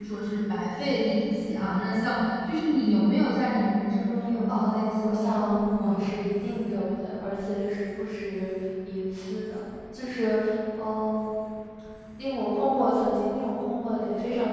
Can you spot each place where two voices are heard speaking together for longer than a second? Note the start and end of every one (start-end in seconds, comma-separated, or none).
4.5-6.1